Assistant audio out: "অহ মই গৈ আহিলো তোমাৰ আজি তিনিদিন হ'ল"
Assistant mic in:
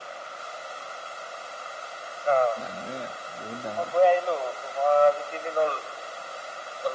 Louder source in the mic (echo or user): echo